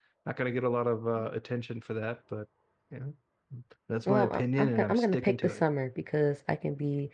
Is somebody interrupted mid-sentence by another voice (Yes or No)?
Yes